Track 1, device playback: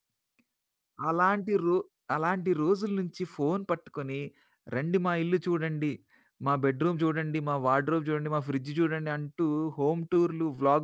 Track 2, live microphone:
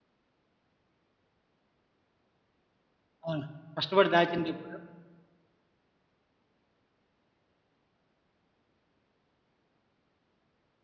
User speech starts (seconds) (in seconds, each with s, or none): 3.2 s